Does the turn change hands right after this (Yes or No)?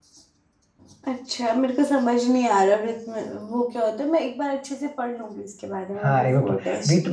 Yes